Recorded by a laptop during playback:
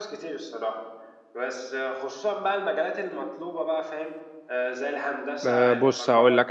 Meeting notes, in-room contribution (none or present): present